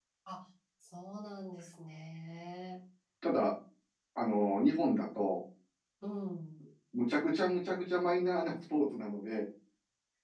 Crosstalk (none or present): none